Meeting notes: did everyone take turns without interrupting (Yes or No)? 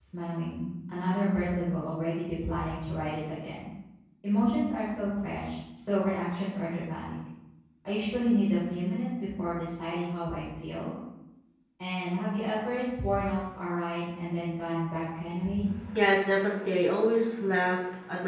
Yes